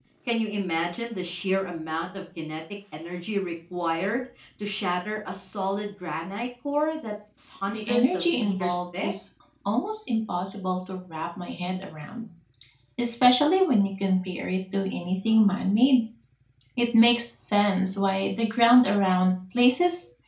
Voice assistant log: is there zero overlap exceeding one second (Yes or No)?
No